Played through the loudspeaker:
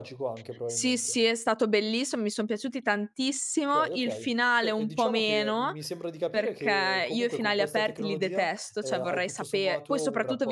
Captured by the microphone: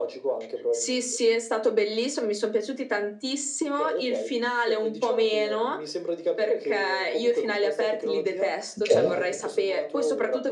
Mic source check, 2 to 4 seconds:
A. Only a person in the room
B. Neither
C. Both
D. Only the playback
D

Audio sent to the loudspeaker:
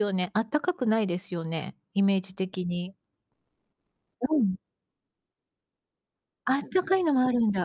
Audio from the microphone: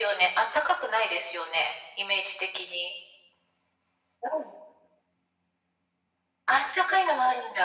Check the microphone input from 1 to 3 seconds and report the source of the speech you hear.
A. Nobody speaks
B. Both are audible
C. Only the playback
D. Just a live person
C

